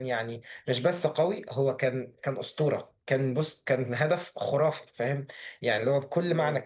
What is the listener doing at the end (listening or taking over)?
listening